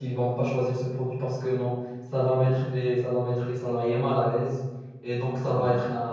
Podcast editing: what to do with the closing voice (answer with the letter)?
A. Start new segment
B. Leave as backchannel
B